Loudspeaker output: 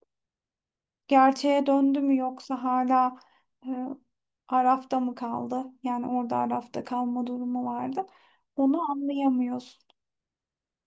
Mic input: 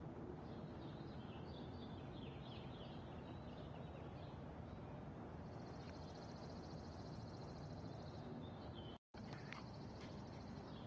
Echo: none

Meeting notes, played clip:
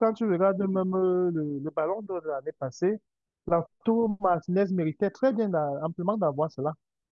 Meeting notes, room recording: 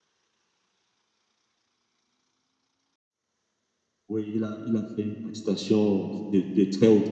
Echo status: none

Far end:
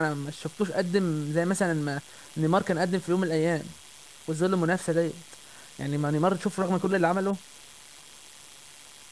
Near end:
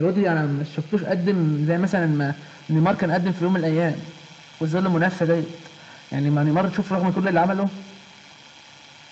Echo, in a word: present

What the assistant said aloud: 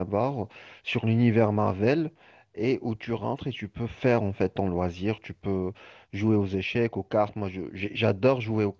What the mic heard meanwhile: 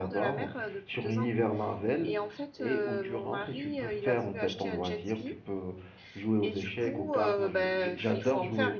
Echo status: present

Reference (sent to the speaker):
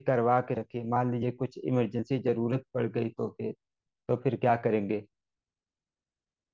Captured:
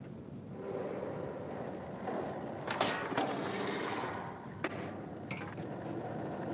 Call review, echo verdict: none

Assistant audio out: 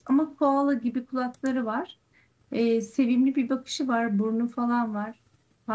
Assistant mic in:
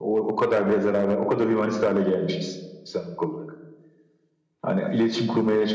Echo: none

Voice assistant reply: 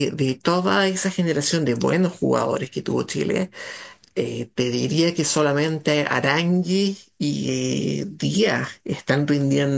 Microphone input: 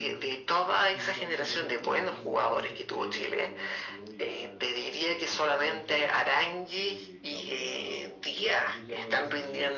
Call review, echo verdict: present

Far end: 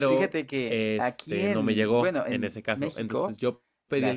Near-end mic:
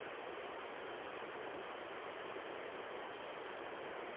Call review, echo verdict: none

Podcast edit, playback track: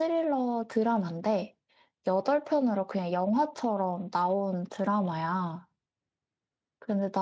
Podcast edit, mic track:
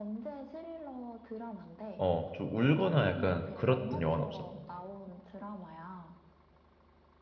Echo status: present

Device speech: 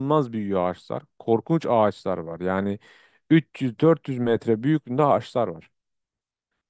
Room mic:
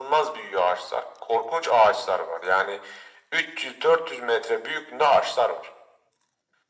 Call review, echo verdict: present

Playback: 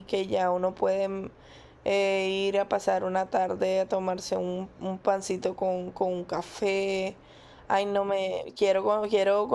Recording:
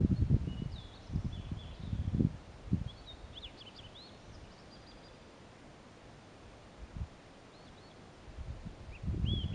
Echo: none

